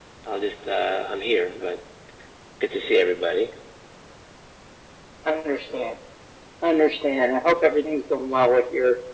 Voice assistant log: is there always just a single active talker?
Yes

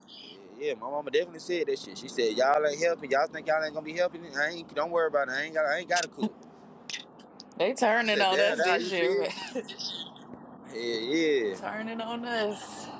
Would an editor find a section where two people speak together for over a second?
Yes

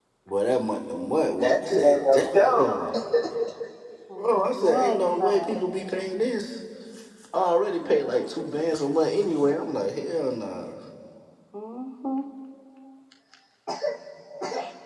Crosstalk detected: Yes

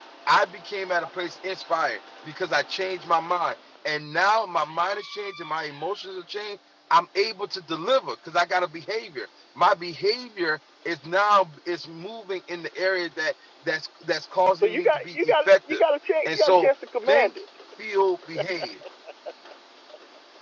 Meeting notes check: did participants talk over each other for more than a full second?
Yes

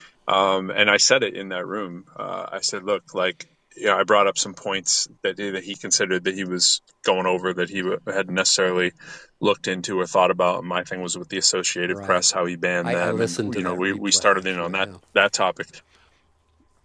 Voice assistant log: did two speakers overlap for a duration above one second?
Yes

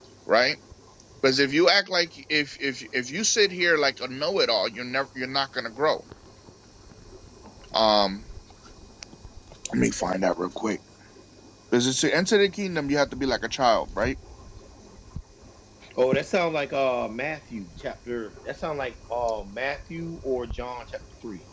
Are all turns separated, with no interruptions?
Yes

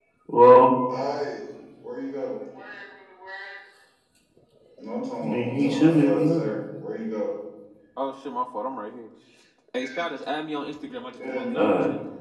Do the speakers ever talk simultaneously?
Yes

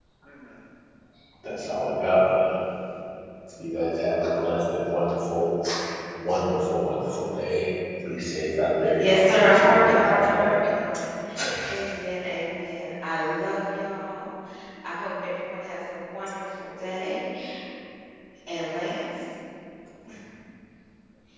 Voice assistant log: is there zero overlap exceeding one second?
No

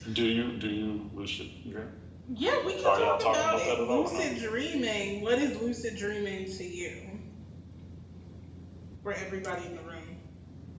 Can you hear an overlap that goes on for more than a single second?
Yes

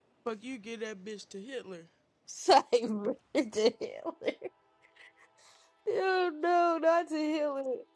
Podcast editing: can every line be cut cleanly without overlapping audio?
Yes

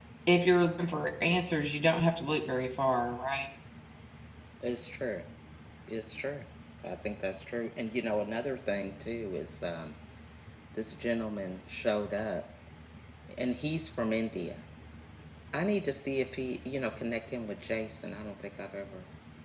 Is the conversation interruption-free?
Yes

